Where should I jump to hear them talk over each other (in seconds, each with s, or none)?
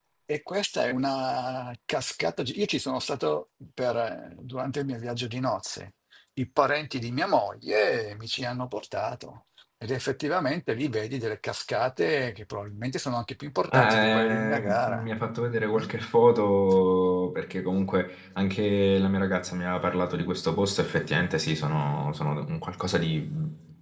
13.7 s